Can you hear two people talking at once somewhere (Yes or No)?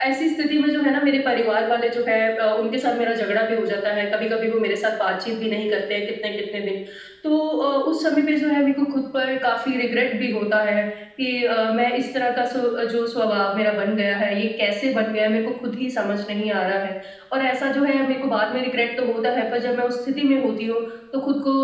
No